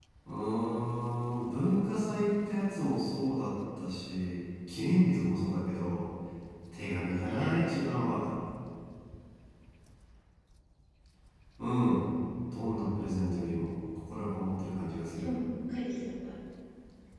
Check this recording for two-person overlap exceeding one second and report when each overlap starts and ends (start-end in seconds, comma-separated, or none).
6.9-8.2